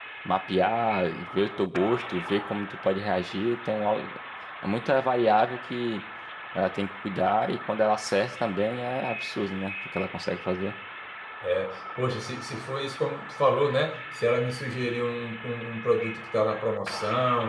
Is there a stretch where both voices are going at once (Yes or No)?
No